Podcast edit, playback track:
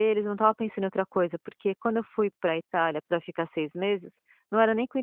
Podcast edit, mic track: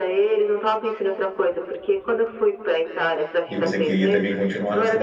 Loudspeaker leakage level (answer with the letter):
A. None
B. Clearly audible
B